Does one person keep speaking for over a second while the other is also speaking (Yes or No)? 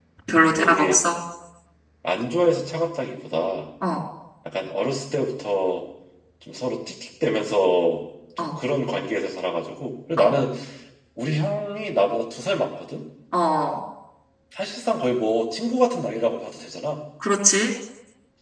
No